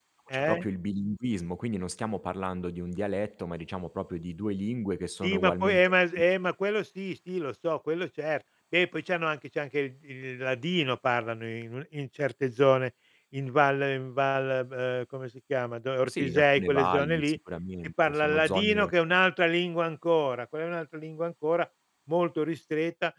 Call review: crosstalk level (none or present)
present